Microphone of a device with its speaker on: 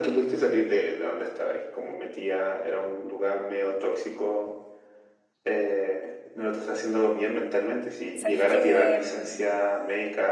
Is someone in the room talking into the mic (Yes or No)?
Yes